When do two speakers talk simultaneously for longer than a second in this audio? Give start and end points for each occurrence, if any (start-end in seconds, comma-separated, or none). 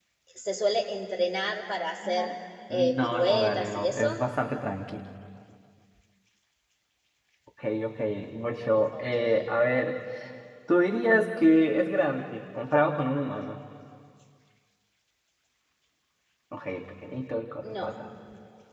2.7-4.2